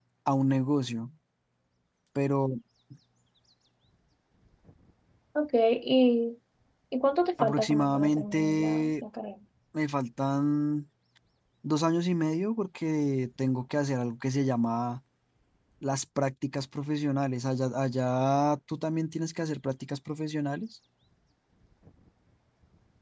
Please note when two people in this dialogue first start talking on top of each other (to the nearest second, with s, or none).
7 s